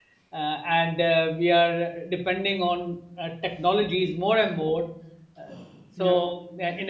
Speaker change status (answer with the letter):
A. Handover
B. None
B